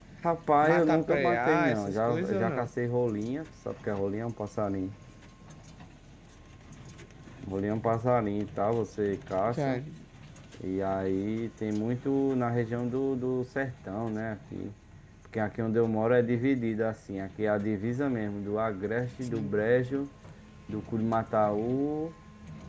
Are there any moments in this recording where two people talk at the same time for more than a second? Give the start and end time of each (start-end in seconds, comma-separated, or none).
0.6-2.7